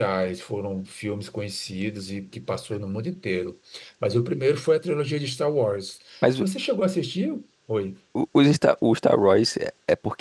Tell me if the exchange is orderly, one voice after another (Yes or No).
Yes